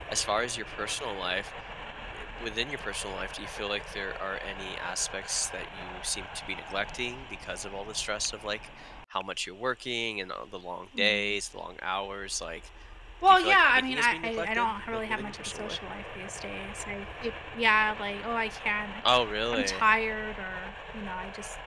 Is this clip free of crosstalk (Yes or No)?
No